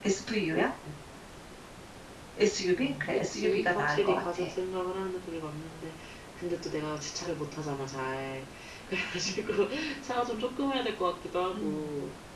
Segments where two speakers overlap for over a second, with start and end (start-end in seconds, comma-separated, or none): 2.8-4.5